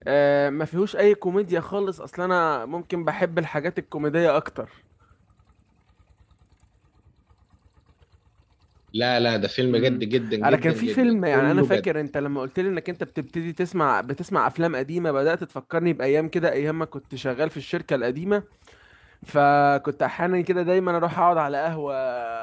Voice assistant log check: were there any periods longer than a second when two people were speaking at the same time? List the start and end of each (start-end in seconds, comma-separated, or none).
10.4-11.9